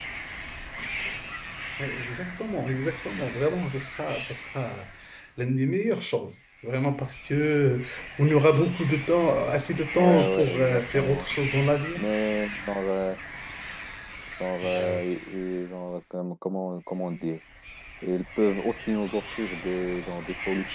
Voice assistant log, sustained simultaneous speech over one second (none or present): present